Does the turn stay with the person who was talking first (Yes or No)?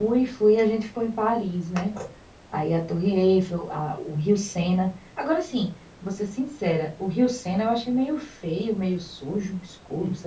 No